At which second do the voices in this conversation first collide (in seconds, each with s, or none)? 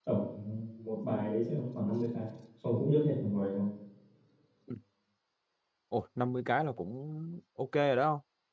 none